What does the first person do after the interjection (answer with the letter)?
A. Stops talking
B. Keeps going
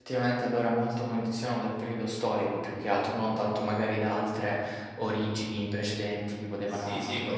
A